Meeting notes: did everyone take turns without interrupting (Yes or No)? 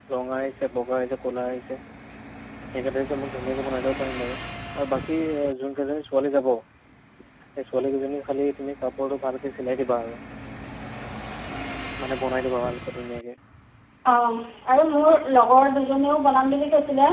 Yes